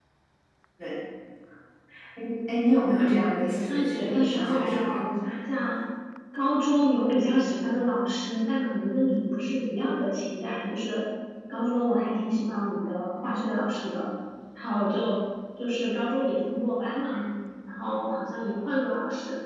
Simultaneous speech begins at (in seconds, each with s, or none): 3.5 s